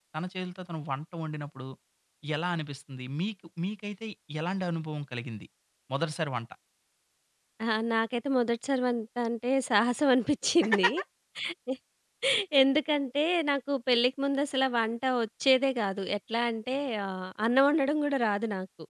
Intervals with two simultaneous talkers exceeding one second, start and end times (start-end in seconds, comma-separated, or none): none